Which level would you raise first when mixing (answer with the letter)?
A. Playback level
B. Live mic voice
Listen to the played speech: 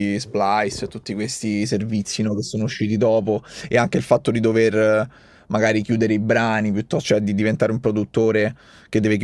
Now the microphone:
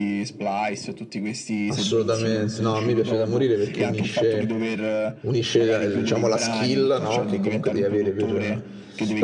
A